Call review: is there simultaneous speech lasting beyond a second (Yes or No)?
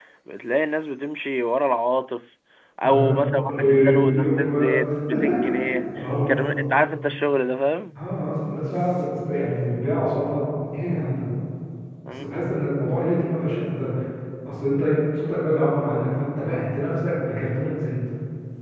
Yes